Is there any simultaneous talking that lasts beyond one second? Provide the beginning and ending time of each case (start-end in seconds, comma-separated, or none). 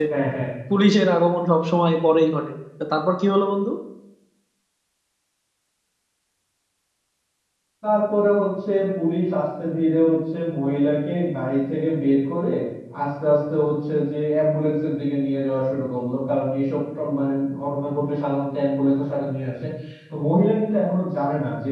none